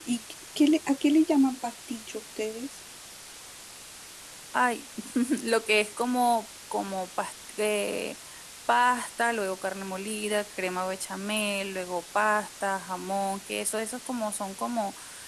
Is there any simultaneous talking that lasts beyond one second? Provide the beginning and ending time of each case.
none

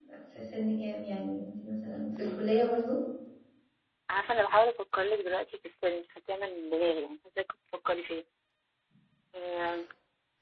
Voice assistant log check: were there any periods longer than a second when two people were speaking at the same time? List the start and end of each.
none

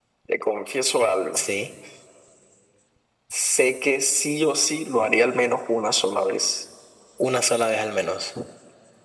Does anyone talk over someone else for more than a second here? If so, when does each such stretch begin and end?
none

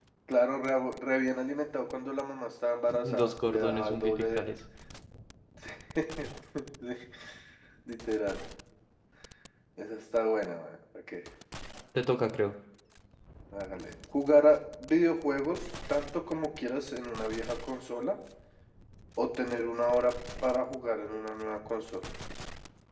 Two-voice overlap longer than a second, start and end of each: 3.0-4.4

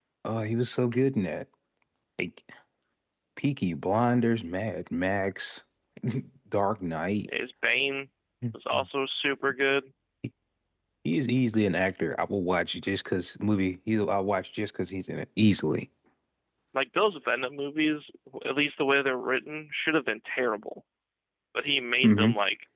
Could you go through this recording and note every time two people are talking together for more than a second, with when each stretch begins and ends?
none

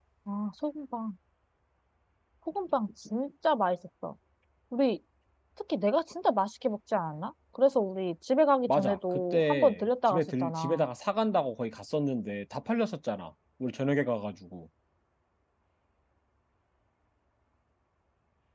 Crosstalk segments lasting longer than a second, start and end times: 8.7-10.8

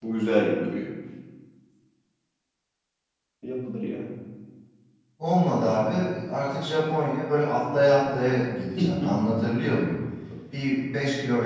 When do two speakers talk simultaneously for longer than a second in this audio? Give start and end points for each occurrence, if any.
none

